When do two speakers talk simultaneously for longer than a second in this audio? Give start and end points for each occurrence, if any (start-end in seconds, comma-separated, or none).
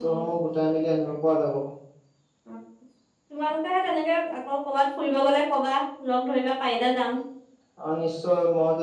none